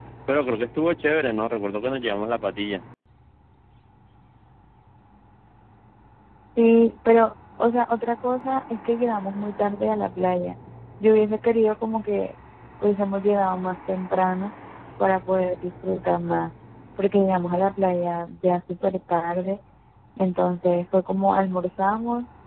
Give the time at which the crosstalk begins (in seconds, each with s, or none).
none